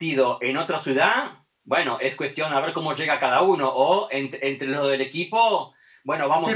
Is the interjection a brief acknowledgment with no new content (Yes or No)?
Yes